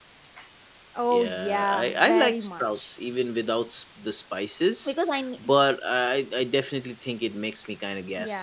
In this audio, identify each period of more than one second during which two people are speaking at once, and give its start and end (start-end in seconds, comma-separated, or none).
1.1-2.9